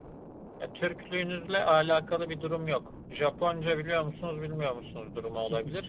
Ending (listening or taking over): listening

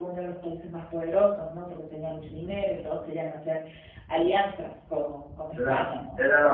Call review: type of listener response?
taking over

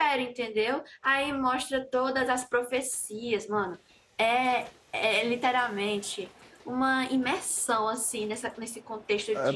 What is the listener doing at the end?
taking over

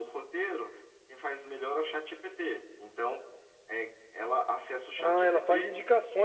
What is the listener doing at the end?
taking over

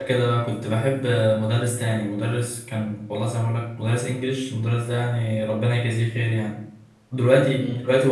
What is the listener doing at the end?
listening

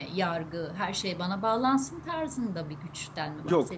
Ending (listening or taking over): taking over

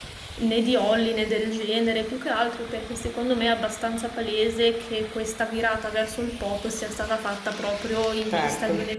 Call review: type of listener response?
listening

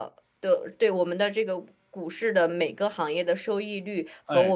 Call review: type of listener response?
listening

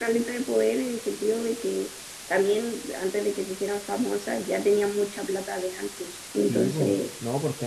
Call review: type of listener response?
taking over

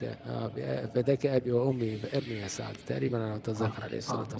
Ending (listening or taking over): taking over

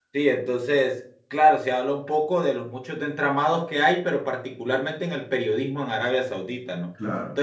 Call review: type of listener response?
listening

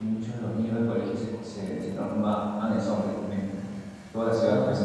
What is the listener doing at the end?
listening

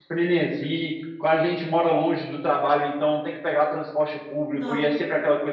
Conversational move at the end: listening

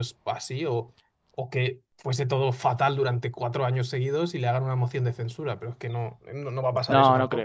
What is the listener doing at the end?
taking over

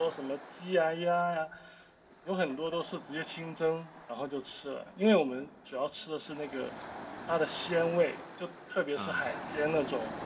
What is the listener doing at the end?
listening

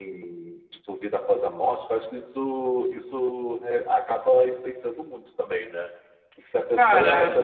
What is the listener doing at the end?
listening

